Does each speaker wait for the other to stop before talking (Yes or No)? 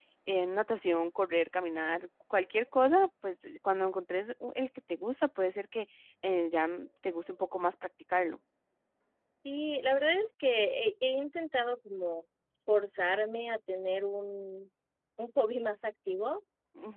Yes